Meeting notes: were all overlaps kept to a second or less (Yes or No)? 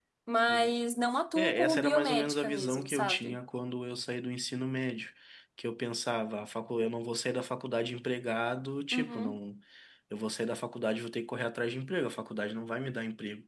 No